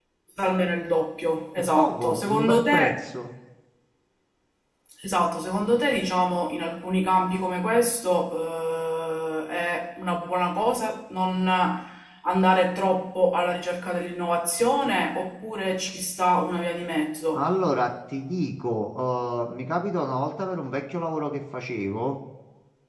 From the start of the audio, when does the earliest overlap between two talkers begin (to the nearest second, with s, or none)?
2 s